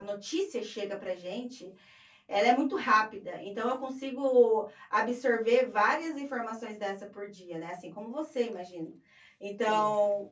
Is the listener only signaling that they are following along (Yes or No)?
Yes